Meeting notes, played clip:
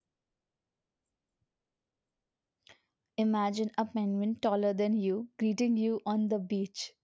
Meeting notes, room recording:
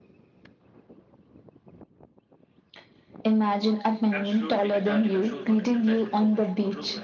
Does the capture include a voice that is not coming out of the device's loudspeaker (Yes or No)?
Yes